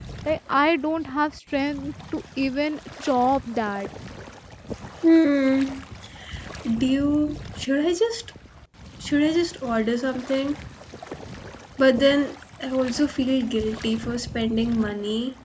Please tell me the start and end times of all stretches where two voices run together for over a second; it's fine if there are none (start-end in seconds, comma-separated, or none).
none